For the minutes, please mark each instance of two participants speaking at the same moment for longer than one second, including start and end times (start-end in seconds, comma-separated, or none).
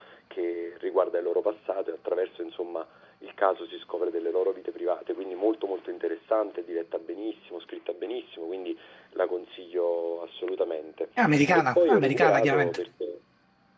11.5-12.8